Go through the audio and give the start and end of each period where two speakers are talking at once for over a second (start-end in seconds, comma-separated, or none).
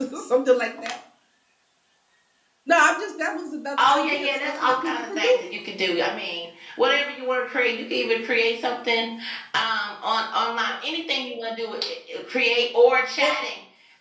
3.8-5.4